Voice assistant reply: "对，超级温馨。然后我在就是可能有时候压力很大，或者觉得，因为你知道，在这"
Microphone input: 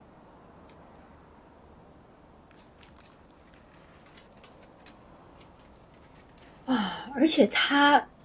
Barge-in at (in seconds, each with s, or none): 6.6 s